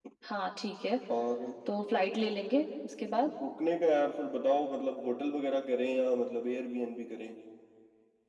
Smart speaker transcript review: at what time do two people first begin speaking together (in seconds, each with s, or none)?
none